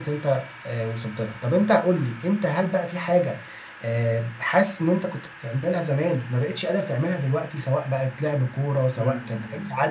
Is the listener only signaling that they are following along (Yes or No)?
No